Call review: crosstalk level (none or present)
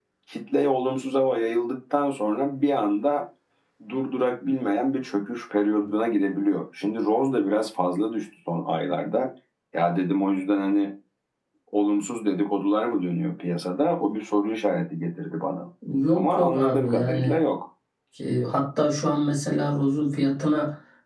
present